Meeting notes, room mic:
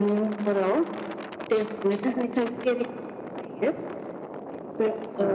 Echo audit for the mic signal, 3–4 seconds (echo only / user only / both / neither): echo only